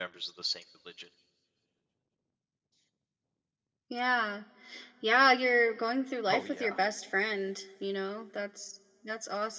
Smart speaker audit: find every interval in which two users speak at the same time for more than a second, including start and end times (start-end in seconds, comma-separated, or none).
none